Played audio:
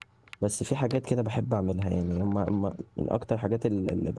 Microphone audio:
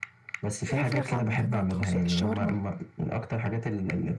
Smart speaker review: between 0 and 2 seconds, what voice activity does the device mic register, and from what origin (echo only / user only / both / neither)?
both